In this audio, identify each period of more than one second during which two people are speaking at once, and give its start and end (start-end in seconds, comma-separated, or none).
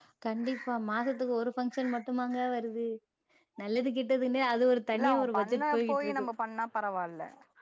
4.9-6.2